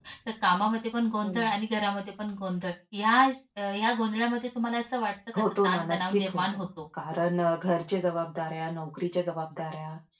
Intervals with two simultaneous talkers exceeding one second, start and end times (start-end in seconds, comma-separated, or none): 5.3-6.6